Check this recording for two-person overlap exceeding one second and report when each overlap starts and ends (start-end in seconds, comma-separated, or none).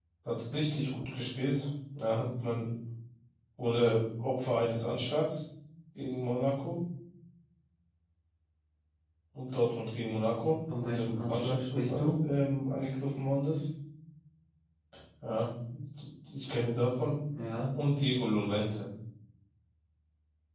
10.8-12.1